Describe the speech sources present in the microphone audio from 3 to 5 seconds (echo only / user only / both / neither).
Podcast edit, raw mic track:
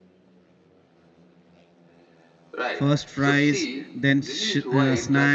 both